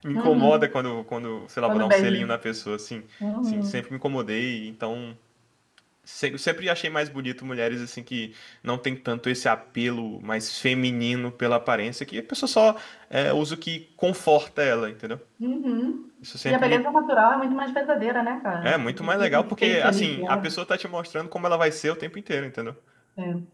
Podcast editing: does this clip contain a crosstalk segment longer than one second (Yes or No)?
Yes